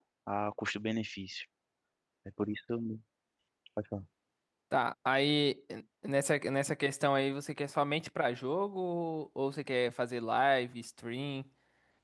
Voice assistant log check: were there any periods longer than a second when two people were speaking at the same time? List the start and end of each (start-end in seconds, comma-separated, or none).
none